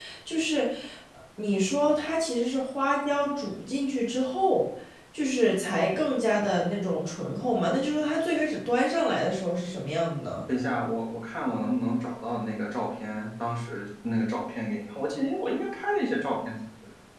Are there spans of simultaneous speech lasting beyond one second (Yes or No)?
No